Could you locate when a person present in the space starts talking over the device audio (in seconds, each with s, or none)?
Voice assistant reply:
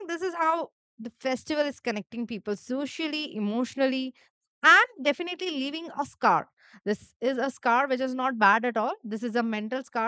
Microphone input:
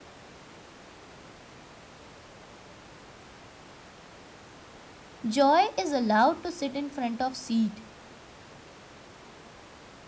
5.2 s